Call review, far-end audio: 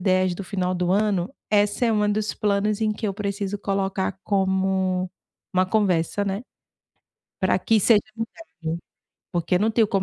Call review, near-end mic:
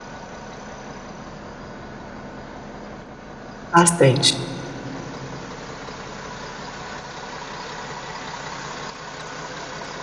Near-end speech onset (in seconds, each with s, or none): 3.7 s